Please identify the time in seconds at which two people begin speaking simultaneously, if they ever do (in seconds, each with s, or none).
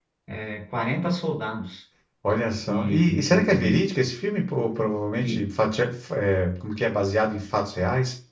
2.6 s